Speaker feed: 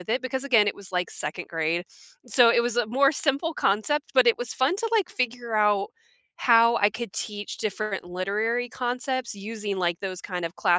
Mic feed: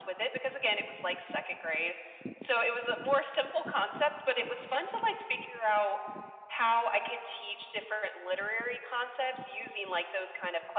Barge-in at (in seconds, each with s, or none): none